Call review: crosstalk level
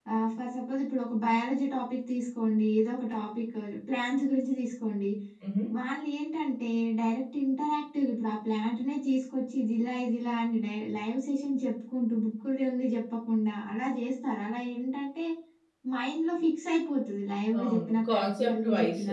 present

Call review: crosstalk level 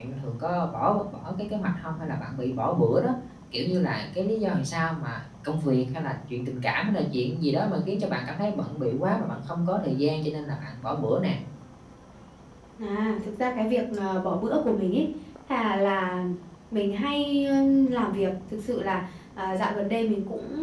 none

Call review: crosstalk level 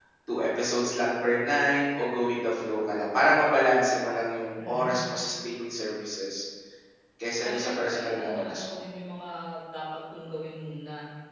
present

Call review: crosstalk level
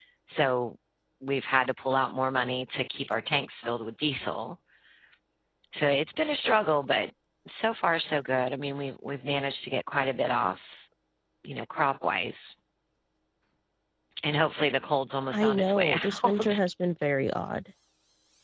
present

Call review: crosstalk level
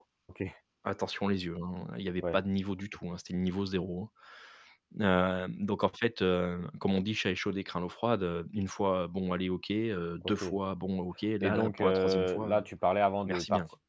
present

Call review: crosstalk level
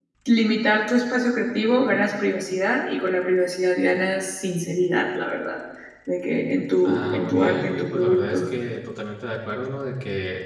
present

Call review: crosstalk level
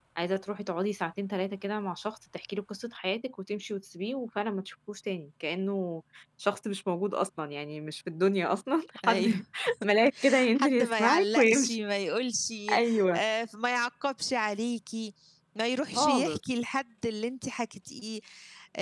present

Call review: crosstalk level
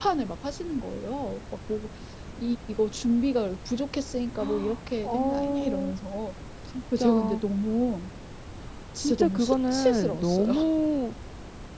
present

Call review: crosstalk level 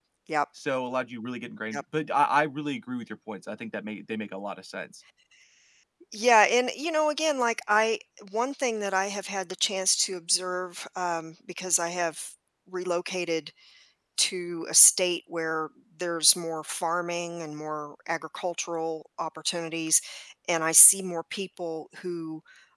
none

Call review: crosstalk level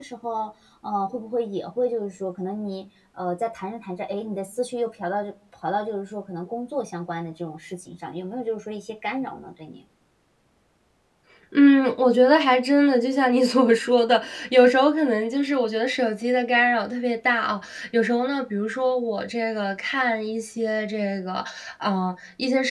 none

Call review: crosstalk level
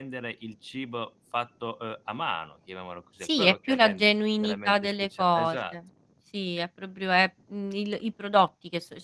present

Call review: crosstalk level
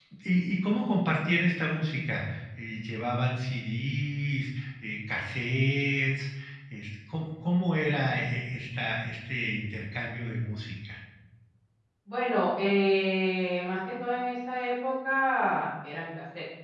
none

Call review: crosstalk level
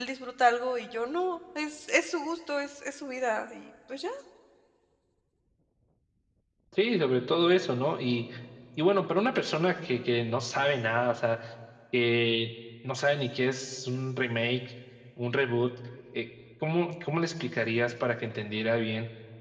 none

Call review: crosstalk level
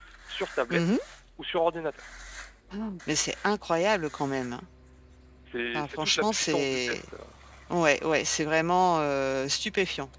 present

